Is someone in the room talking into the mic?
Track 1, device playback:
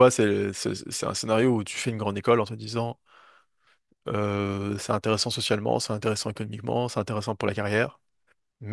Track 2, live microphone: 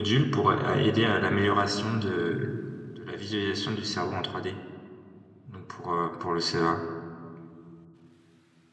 Yes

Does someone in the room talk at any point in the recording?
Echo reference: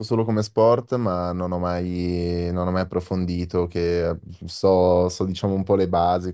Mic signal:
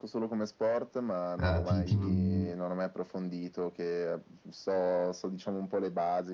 Yes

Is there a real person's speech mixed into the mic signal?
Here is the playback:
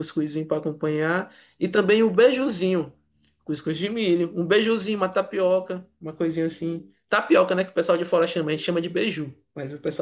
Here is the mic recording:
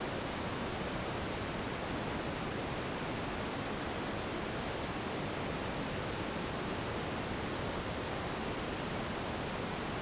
No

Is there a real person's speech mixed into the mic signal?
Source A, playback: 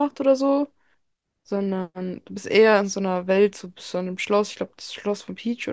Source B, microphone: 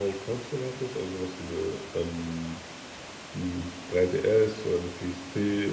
Yes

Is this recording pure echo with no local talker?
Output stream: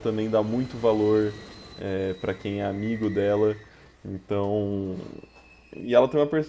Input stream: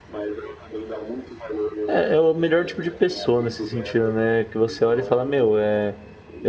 No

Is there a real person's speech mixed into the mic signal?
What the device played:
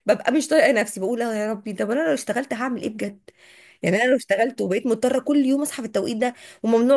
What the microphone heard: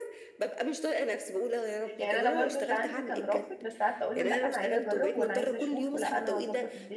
Yes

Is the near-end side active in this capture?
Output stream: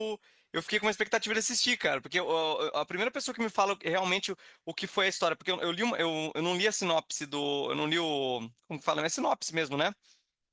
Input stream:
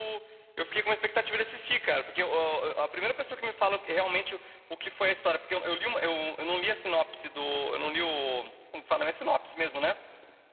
No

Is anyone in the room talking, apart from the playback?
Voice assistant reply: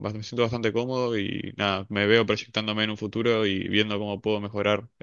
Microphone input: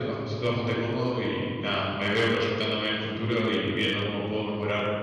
No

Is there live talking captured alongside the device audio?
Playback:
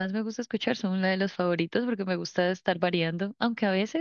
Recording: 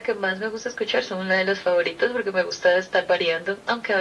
No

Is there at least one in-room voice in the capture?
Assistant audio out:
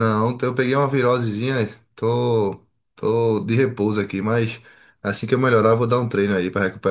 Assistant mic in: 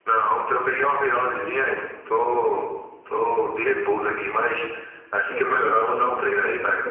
Yes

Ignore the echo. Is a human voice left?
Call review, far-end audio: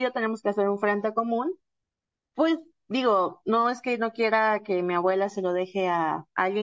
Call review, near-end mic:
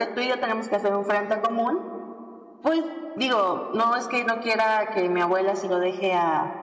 No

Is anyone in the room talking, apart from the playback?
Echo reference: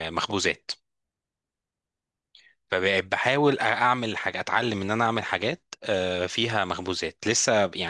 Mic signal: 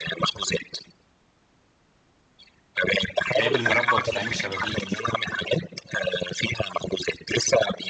Yes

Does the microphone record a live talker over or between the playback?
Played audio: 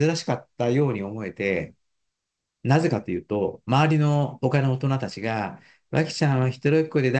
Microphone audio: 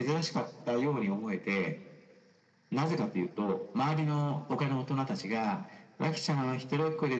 No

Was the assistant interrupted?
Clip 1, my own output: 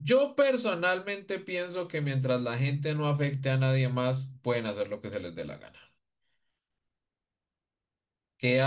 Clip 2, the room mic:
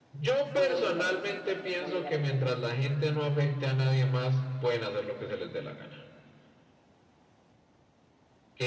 Yes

